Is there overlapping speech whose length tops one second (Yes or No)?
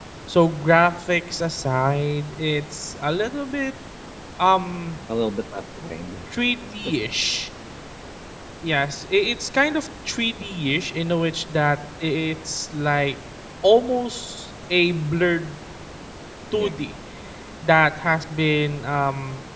No